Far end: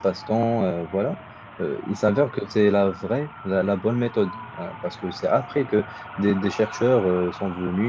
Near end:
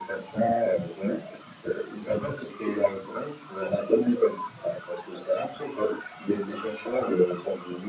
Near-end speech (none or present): none